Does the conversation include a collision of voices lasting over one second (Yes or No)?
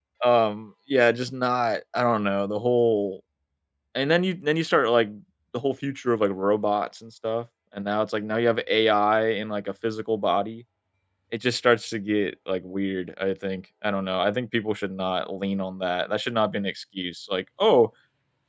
No